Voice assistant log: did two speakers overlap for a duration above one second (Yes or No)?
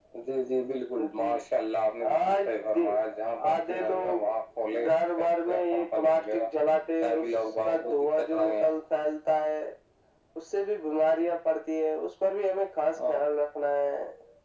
Yes